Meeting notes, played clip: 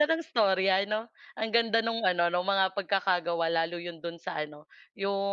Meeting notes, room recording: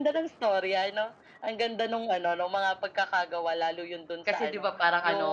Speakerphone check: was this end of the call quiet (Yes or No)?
No